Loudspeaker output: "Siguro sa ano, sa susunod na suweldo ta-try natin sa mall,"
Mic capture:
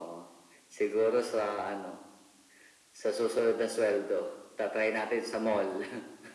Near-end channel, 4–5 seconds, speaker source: echo only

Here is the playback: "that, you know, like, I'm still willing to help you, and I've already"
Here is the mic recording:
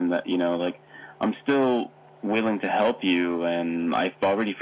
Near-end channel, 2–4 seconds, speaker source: echo only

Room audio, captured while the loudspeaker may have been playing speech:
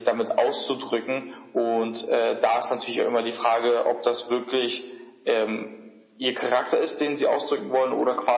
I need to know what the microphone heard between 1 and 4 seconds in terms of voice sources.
echo only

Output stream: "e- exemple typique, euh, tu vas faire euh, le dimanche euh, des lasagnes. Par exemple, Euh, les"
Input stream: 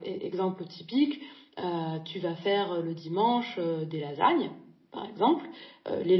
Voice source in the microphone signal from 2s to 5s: echo only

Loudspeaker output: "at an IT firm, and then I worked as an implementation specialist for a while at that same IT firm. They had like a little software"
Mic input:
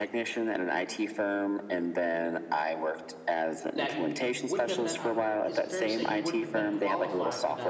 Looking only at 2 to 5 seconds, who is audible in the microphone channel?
both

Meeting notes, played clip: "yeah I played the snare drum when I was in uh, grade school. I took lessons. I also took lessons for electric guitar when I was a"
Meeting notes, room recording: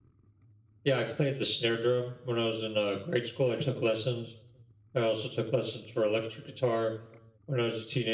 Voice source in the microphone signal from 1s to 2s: echo only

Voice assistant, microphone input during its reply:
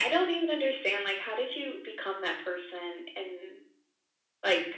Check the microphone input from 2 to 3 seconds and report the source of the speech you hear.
echo only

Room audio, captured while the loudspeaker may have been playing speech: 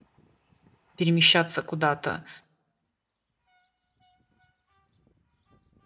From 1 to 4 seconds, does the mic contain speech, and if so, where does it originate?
user only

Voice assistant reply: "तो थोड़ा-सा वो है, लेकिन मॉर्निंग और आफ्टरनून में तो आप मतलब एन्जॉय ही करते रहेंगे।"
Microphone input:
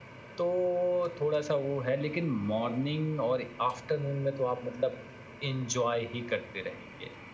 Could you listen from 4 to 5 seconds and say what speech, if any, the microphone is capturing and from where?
echo only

